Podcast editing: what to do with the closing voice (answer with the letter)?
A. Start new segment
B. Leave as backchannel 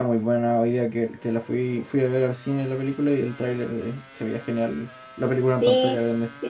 A